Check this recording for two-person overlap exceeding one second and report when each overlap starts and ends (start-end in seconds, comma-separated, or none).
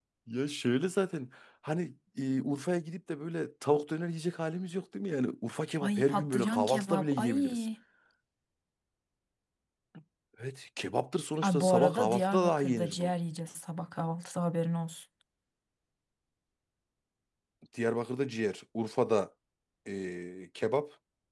5.8-7.7, 11.4-13.1